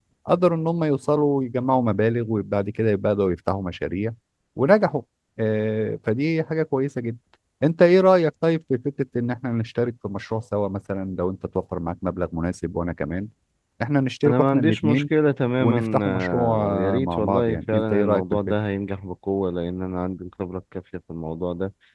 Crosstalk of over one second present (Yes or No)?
Yes